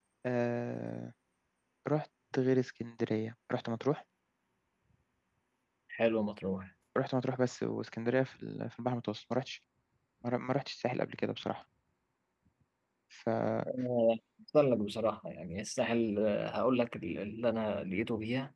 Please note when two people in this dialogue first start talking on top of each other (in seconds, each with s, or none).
none